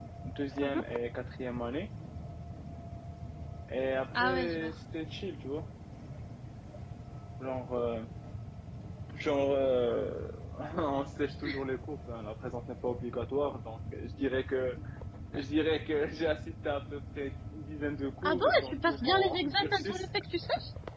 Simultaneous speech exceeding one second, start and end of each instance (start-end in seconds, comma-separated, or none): 18.2-20.0